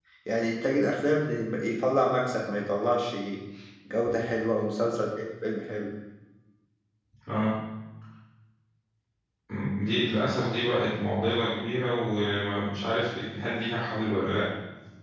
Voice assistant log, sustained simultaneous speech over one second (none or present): none